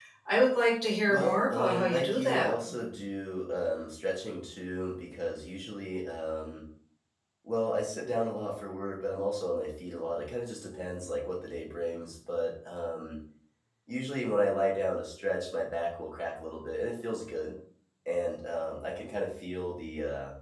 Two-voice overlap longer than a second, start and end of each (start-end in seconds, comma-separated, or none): 1.1-2.5